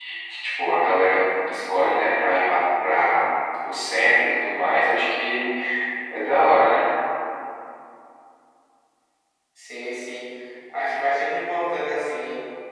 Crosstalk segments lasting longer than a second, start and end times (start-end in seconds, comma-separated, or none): none